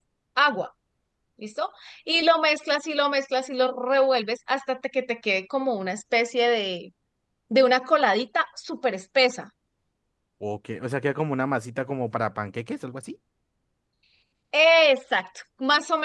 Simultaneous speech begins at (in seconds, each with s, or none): none